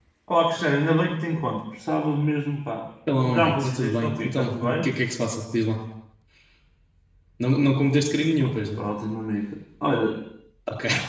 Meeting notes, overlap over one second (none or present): present